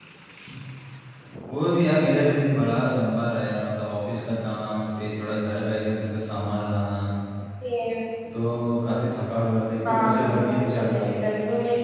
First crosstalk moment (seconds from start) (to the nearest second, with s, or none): 10 s